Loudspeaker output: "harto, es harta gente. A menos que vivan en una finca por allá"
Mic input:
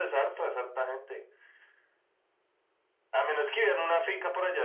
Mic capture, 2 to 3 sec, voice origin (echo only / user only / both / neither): neither